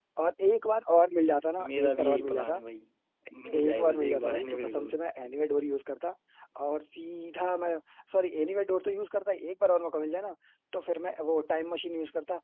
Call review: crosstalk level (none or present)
present